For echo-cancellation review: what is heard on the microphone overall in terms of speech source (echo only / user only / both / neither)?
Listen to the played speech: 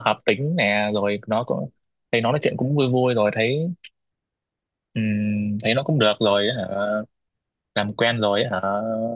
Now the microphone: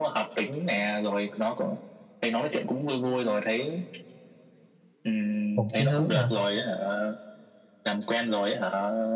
both